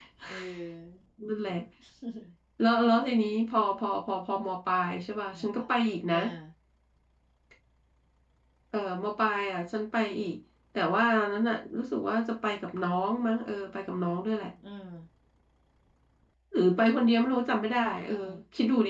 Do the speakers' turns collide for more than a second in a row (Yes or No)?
No